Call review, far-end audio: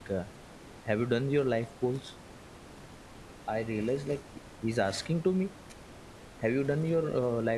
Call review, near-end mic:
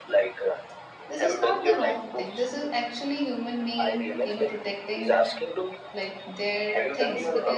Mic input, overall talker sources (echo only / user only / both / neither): both